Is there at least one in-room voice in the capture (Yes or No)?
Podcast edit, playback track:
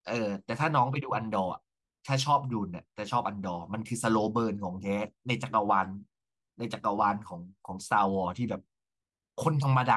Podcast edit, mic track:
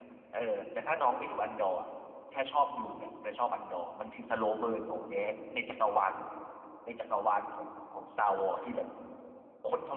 No